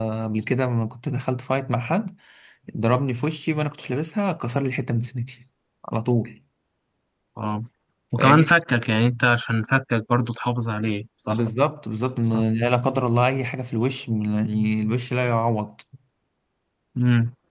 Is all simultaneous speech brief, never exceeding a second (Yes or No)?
Yes